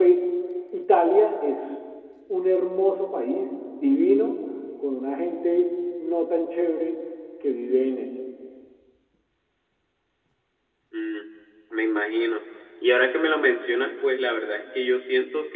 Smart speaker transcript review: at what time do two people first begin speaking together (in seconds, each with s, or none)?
none